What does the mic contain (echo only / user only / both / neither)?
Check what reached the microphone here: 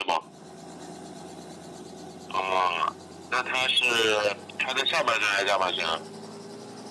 echo only